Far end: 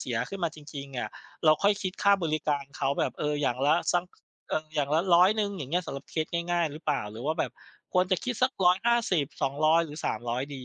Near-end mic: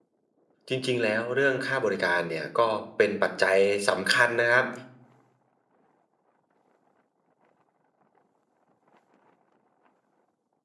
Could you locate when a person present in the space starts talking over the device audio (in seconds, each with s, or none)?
0.7 s